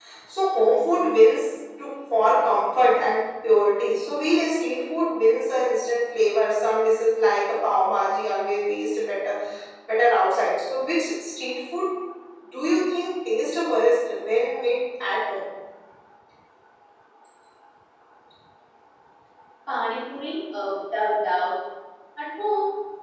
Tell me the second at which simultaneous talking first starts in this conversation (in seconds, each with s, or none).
none